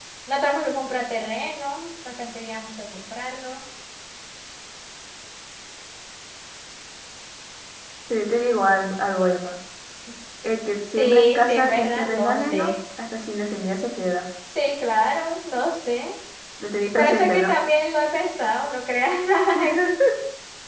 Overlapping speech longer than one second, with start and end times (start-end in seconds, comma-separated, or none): 11.0-12.7